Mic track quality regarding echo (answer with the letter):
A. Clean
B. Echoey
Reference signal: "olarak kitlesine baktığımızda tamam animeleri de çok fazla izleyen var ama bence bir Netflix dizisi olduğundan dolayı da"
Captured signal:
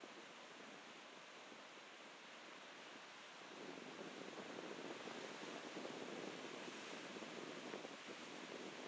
A